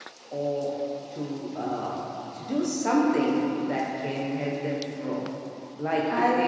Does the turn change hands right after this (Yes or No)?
No